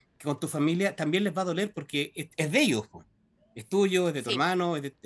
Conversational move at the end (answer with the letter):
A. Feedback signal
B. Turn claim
A